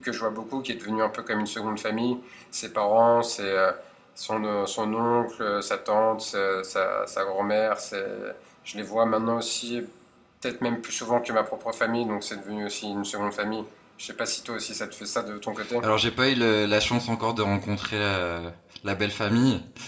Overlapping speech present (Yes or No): No